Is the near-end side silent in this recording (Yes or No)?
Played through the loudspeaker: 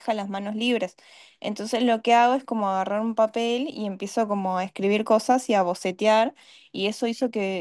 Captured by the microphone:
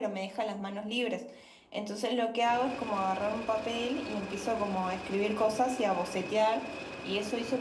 Yes